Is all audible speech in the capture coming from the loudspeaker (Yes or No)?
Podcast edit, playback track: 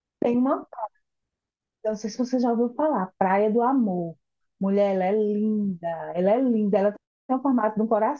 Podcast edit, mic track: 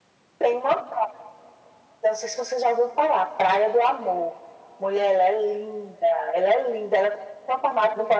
Yes